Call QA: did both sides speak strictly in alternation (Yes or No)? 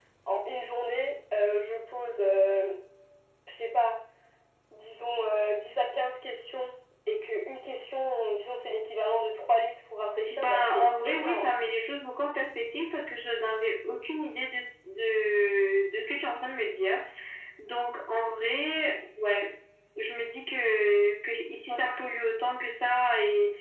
No